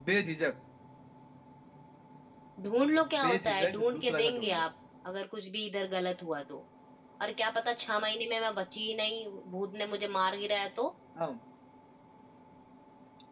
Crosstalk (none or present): present